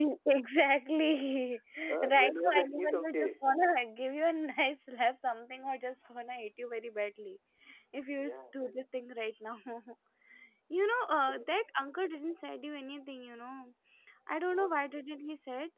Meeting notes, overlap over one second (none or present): present